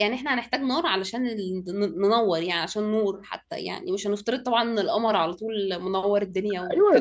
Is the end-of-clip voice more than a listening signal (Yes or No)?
Yes